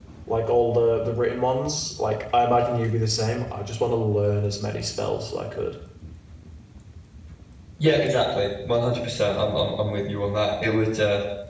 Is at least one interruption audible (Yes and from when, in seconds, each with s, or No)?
No